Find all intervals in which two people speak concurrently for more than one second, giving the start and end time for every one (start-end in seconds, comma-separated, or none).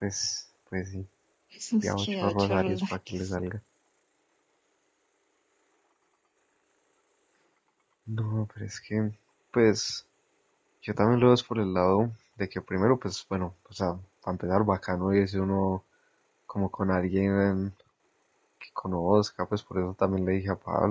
1.8-3.3